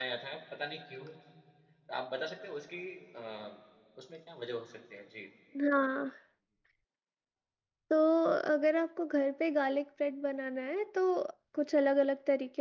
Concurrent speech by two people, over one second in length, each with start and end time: none

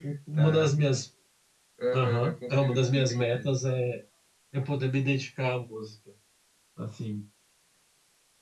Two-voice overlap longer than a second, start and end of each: 1.9-3.5

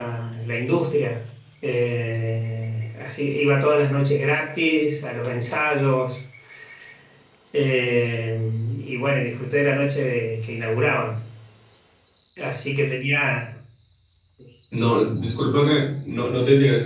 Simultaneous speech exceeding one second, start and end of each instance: none

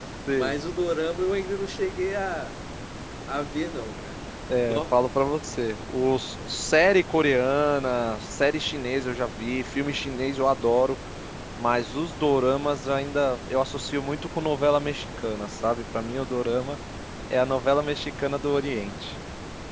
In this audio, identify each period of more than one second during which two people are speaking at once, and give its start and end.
none

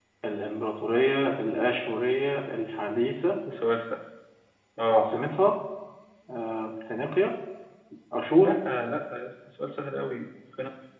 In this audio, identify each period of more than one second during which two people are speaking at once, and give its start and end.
none

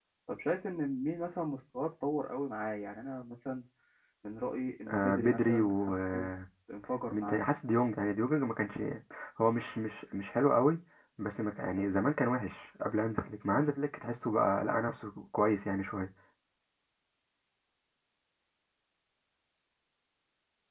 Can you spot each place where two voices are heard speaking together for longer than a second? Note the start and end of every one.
4.9-6.3

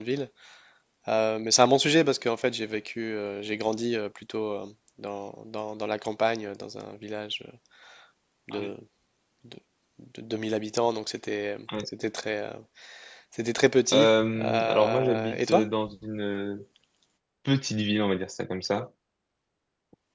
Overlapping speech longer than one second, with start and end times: 13.9-15.7

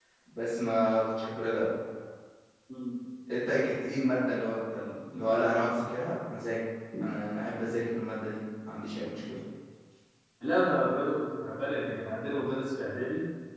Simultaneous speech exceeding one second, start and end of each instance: none

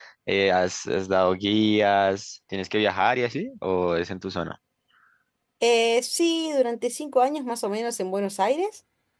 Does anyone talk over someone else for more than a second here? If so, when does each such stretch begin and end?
none

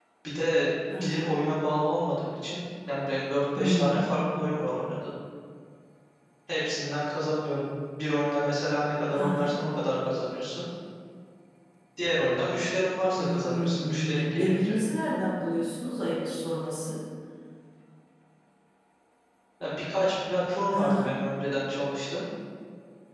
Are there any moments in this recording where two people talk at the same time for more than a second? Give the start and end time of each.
13.2-14.7

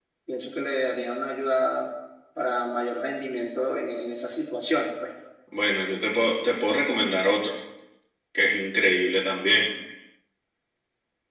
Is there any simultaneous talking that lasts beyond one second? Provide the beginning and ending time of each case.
none

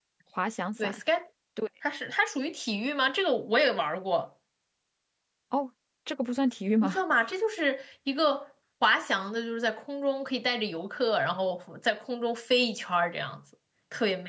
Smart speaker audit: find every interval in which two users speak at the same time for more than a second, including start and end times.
none

